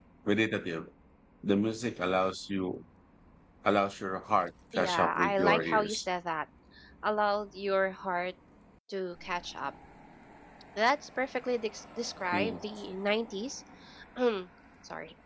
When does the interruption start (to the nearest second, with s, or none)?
5 s